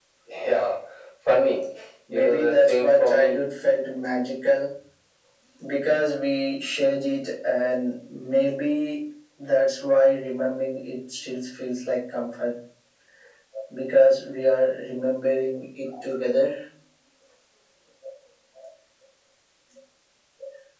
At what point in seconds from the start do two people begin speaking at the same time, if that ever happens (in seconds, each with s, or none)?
2.1 s